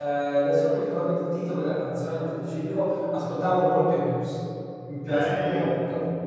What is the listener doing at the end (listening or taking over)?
taking over